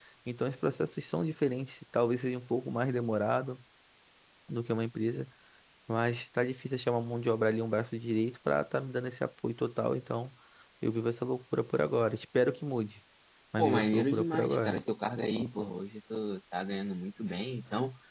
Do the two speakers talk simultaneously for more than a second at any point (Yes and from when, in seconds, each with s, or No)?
Yes, from 13.6 s